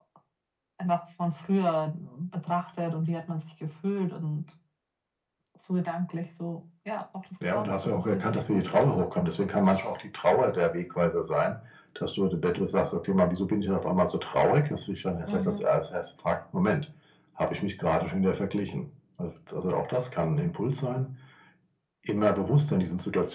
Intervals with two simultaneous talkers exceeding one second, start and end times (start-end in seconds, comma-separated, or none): 7.4-9.0